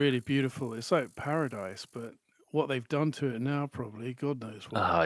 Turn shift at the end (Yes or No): Yes